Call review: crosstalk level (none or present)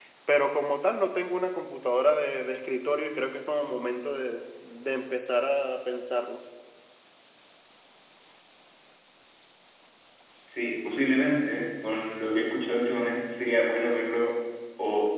none